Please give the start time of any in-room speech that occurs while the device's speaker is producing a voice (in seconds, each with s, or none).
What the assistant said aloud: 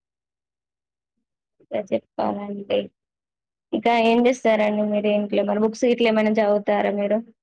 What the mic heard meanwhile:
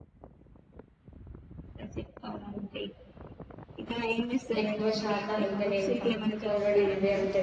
4.6 s